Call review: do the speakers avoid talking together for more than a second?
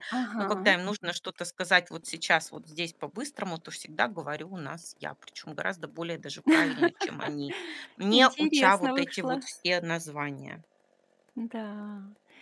No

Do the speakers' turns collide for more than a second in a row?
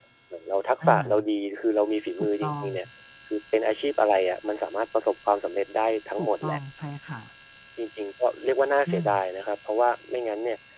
No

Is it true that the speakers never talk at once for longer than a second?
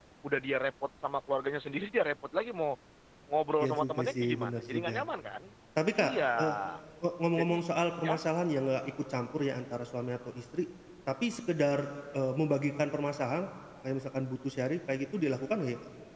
No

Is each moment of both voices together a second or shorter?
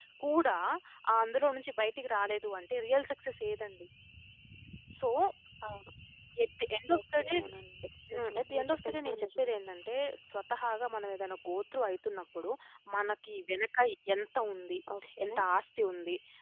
No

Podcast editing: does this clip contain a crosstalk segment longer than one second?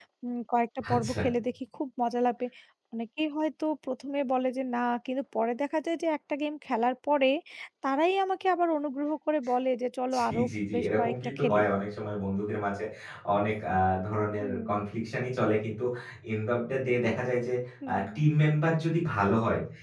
Yes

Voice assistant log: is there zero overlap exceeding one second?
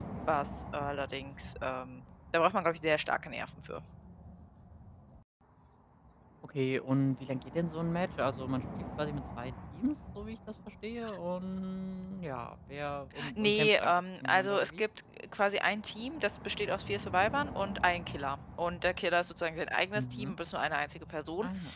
No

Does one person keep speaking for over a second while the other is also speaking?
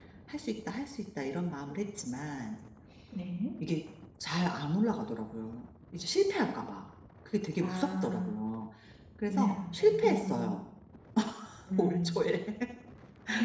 Yes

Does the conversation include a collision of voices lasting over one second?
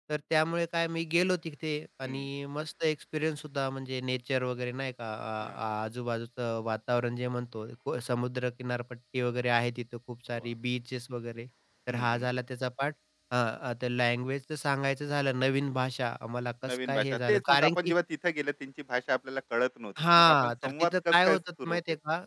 Yes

